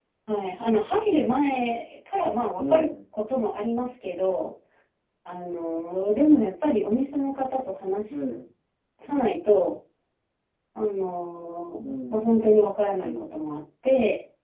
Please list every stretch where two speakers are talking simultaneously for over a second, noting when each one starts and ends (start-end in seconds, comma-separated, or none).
11.8-13.3